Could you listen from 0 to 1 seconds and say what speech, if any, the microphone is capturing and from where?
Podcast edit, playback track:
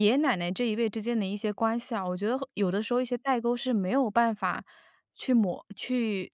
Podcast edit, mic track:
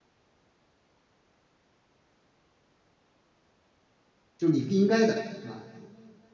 neither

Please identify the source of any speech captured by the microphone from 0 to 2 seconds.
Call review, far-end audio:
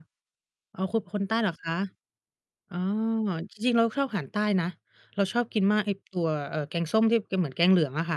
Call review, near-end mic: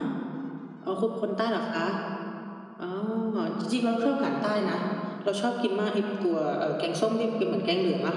echo only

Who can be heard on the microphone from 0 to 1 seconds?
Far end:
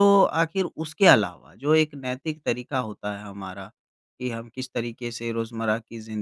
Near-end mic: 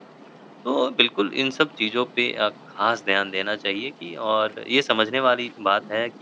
user only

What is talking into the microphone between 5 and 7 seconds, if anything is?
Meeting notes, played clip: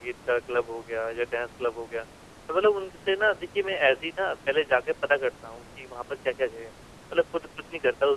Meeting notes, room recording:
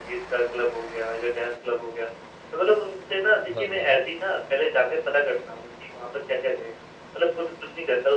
echo only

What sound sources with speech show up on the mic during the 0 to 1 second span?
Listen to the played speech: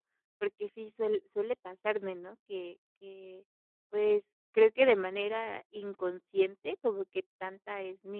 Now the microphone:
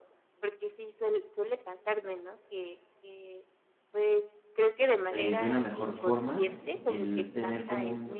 echo only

